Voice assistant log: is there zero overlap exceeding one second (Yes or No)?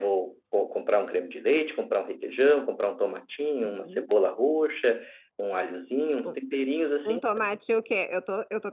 Yes